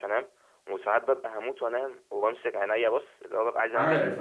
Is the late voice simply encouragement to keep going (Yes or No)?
Yes